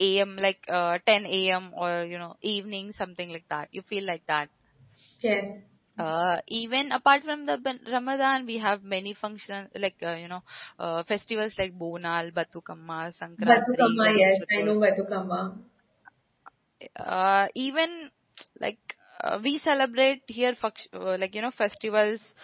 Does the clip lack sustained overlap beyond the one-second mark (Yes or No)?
No